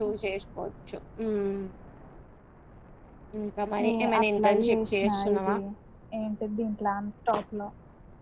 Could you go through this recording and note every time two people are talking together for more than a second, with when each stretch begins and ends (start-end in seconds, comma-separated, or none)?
3.8-5.5